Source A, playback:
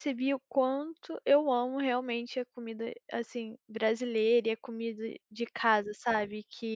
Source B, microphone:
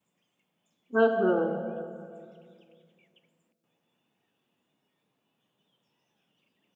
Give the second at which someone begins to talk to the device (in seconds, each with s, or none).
0.9 s